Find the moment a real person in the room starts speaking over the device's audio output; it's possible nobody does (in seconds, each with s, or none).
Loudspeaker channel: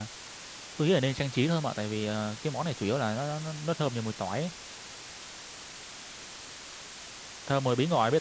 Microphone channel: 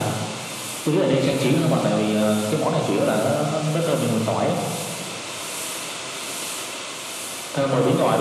none